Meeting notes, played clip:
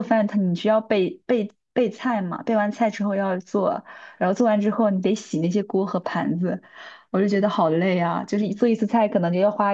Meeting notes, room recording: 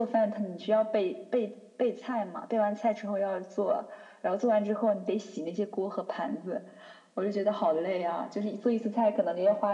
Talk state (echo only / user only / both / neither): echo only